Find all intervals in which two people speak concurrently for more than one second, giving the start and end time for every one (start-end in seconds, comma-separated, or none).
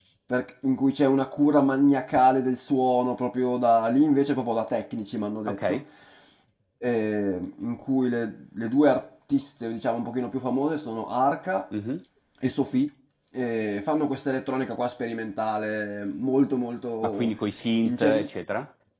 none